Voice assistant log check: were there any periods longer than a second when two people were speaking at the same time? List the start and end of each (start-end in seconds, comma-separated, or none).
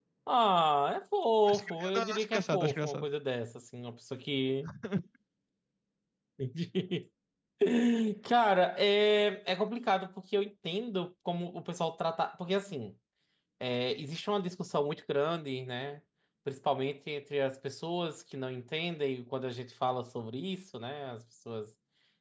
1.5-3.1